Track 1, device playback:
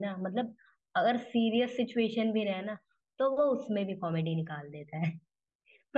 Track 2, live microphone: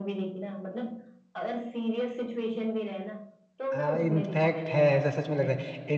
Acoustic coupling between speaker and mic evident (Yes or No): Yes